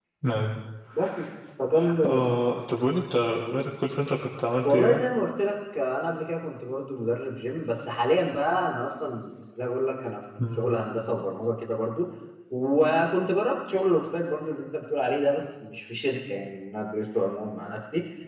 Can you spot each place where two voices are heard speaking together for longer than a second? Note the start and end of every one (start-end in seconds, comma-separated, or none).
none